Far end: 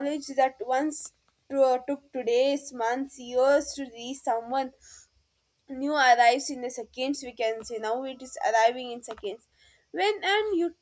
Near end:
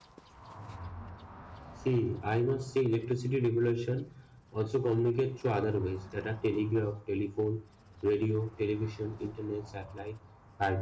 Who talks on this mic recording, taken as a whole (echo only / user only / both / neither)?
user only